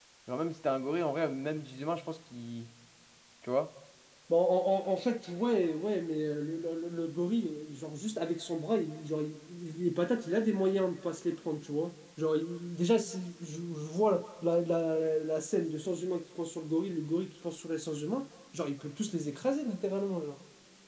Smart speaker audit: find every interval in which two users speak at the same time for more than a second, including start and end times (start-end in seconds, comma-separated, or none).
none